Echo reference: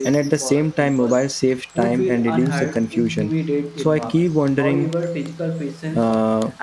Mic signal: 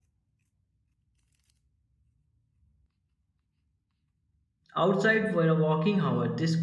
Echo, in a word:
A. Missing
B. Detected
A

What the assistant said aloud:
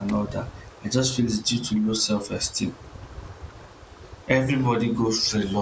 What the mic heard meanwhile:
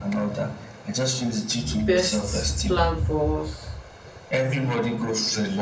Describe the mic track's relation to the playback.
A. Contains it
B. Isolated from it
A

